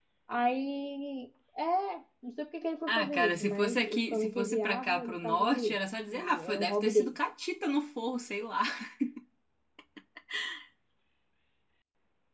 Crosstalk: present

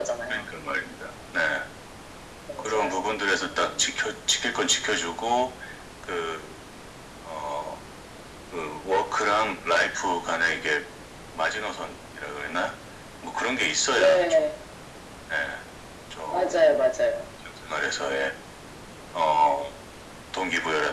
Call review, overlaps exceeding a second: present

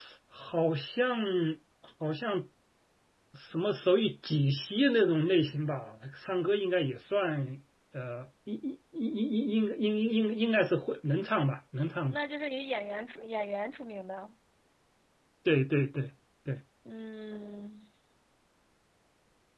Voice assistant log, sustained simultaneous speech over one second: none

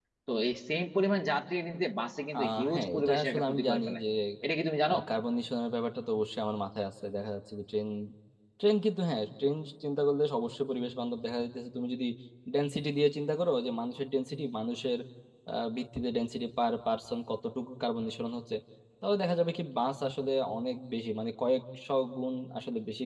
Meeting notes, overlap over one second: present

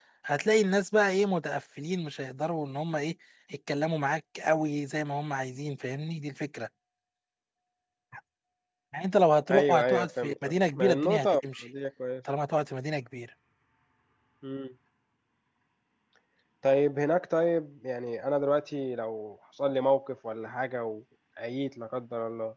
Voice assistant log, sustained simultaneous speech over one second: present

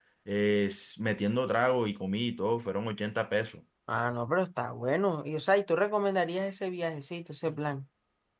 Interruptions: none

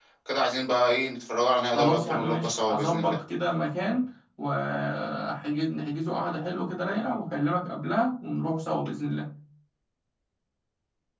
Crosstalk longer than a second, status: present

